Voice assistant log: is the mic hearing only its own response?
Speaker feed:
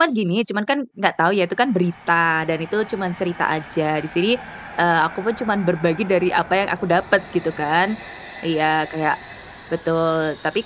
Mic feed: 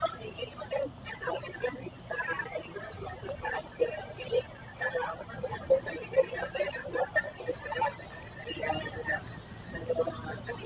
Yes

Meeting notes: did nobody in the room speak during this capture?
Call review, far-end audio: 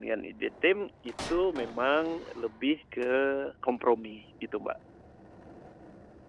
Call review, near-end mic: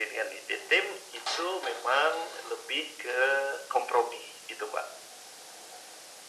Yes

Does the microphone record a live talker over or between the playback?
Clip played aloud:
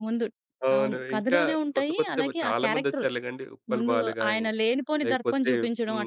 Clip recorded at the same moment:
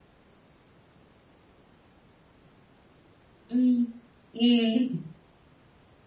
Yes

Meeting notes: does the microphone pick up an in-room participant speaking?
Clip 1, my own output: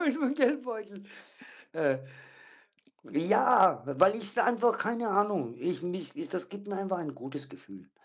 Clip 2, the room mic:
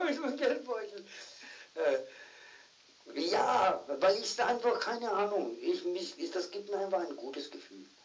No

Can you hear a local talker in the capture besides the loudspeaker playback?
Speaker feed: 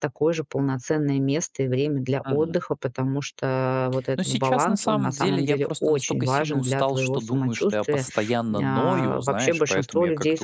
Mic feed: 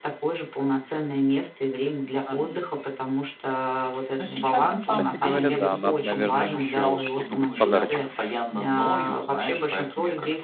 Yes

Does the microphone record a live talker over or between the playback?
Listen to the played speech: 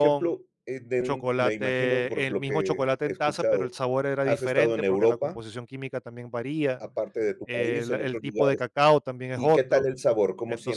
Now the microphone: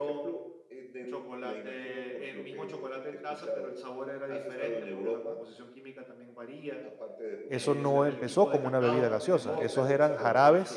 Yes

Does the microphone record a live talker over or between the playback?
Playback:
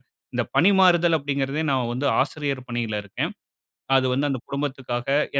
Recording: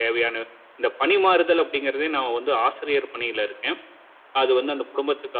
No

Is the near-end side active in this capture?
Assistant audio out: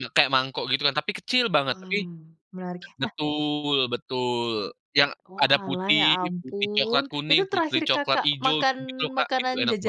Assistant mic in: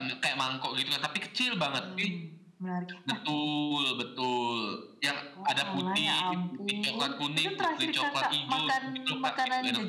No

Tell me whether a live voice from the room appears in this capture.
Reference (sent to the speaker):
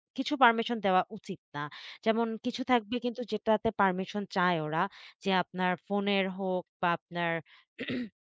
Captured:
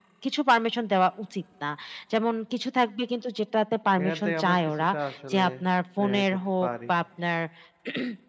Yes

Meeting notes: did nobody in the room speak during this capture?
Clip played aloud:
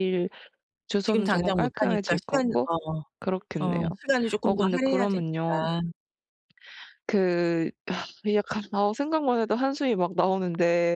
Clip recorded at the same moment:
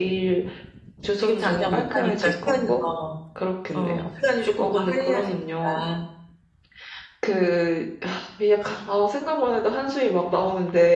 No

